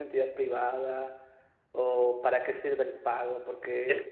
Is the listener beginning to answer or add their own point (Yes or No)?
No